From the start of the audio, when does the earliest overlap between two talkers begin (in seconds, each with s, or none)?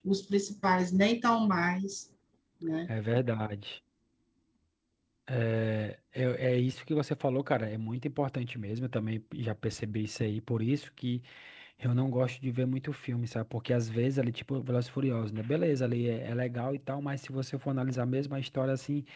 none